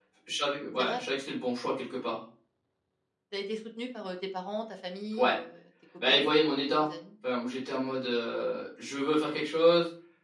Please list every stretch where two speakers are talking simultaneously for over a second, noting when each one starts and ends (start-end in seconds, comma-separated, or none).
none